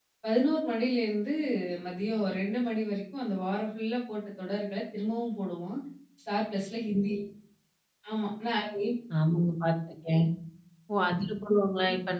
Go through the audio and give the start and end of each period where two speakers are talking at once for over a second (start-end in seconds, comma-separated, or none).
none